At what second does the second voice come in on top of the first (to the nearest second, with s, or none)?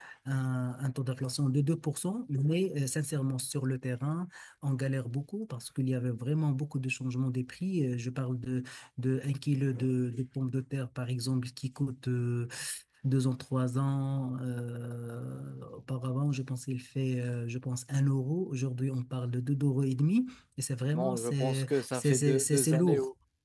21 s